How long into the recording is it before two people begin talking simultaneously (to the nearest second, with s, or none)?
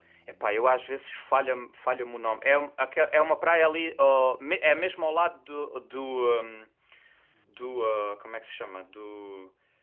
none